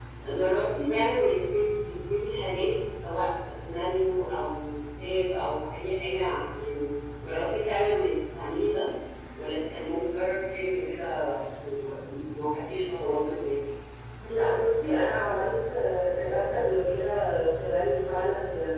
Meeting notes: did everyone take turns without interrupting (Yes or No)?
Yes